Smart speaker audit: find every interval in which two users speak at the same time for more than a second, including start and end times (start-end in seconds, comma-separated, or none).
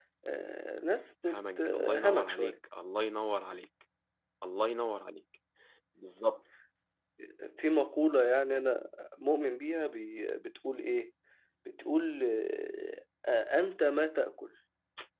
1.3-2.6